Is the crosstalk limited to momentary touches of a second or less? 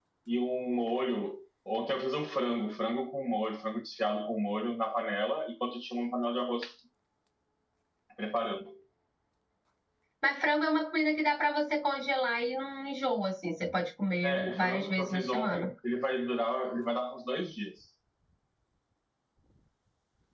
No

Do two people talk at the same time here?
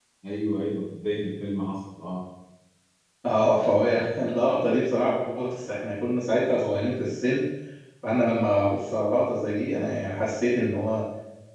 No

